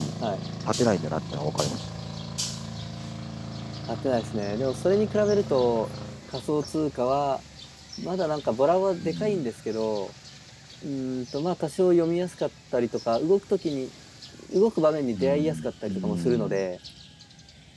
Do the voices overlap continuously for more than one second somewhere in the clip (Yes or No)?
Yes